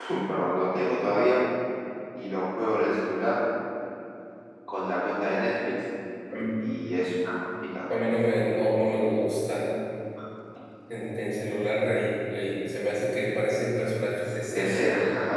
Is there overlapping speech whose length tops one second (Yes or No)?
No